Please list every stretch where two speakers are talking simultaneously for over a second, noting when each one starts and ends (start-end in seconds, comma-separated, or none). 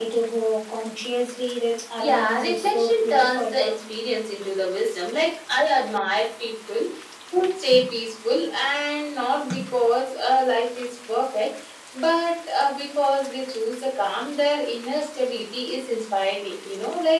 2.0-3.8